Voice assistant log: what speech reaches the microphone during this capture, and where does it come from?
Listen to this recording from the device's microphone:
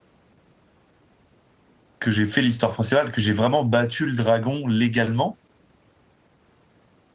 user only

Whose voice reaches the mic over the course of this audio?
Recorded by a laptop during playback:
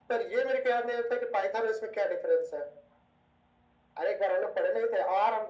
echo only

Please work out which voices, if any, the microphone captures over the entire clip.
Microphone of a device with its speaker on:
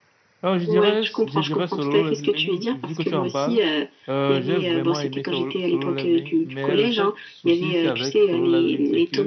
both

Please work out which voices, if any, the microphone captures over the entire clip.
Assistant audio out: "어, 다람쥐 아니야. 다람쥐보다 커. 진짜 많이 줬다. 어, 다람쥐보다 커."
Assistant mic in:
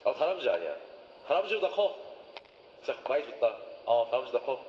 echo only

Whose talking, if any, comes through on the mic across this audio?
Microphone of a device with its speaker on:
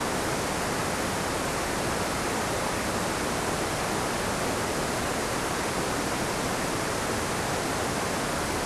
neither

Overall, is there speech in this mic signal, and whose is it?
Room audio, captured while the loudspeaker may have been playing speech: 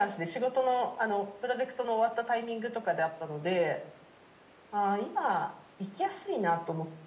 echo only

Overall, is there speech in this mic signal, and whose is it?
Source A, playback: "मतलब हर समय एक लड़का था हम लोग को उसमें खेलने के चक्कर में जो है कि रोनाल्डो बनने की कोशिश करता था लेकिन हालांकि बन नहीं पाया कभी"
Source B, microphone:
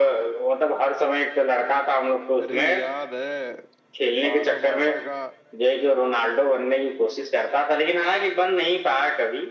both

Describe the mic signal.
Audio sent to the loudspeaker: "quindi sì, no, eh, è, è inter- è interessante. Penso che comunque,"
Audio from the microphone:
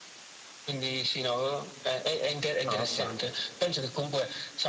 both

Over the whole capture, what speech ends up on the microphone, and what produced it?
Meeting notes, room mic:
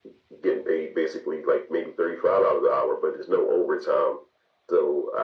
echo only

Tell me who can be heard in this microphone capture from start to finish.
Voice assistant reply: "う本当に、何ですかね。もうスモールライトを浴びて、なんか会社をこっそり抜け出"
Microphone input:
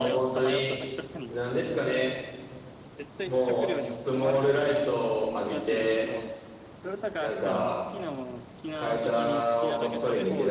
both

